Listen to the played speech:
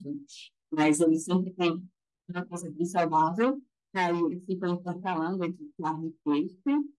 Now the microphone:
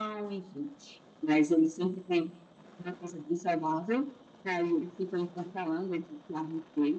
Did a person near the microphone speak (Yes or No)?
No